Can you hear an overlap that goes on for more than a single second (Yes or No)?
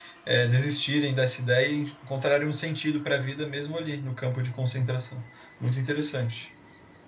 No